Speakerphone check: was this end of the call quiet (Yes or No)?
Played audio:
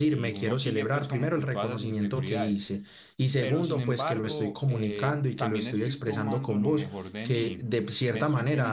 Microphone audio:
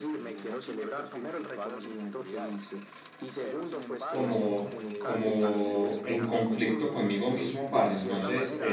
No